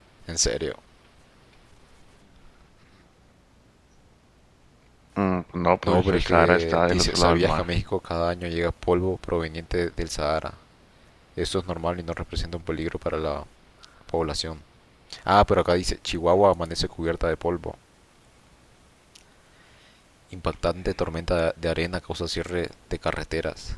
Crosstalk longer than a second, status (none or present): present